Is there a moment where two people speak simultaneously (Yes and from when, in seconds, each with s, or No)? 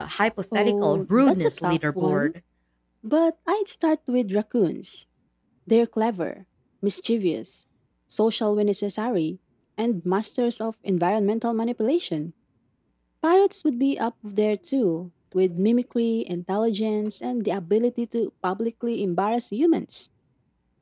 Yes, from 0.5 s